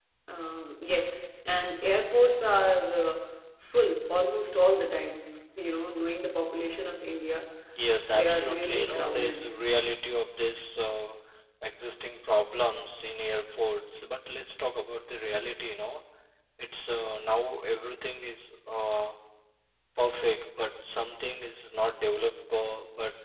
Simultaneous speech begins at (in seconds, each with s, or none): 8.1 s